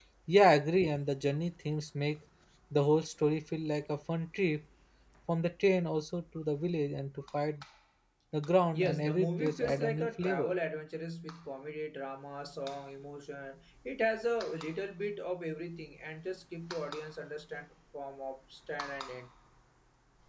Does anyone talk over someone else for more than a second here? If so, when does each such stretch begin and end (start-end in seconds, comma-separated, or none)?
8.7-10.5